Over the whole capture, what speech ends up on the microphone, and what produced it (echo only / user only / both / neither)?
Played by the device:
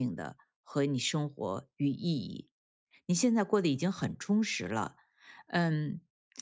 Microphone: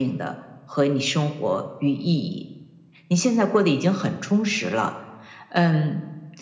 echo only